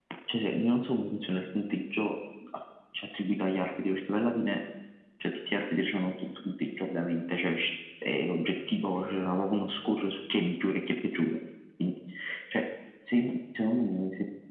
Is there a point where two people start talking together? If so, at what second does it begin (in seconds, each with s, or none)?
none